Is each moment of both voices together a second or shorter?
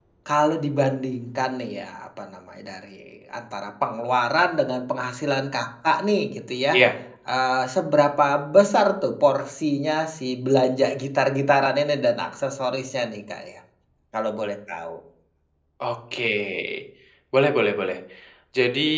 Yes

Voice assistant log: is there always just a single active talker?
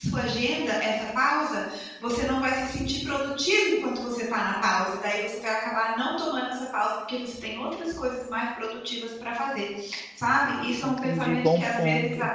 No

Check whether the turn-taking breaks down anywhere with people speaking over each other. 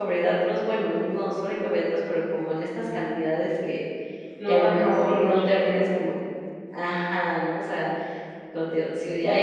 Yes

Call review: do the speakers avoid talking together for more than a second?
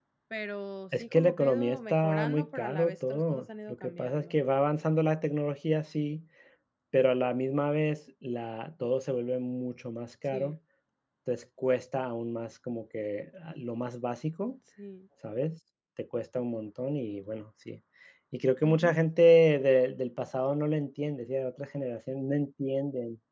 No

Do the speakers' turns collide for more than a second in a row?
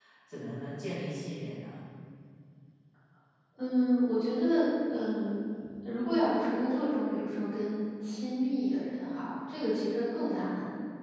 No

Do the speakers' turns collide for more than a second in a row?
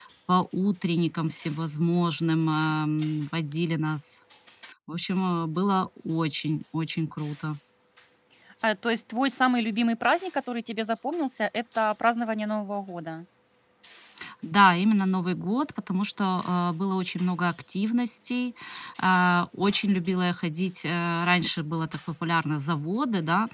No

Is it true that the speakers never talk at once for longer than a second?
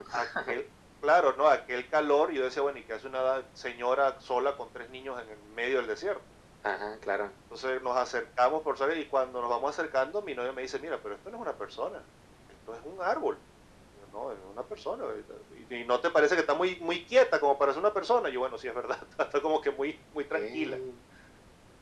Yes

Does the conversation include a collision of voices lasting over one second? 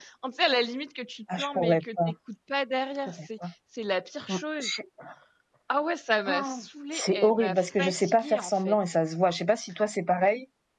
Yes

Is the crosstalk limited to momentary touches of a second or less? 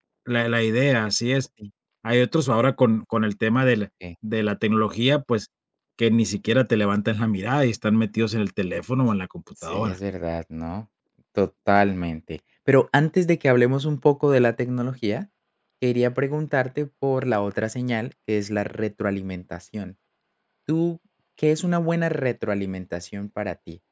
Yes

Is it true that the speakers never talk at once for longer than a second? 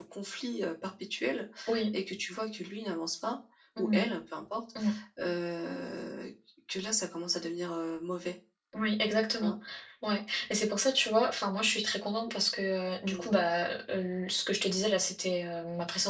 Yes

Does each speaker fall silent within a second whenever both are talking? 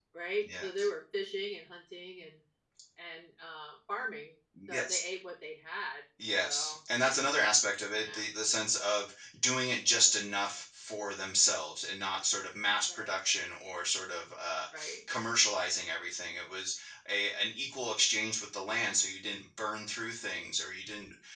Yes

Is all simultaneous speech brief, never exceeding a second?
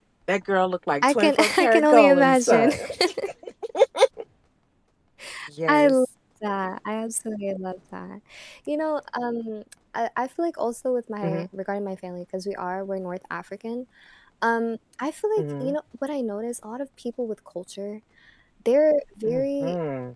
No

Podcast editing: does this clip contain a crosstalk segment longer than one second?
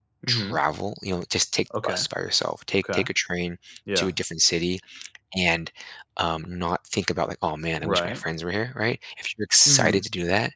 No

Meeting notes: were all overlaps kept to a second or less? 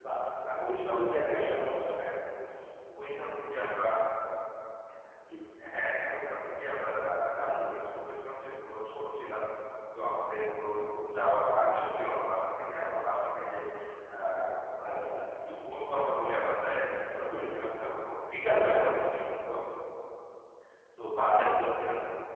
No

